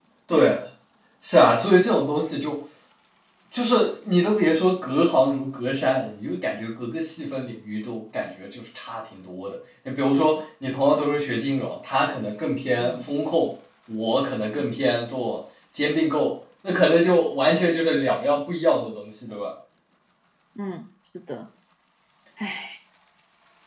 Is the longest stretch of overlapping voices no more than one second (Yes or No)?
Yes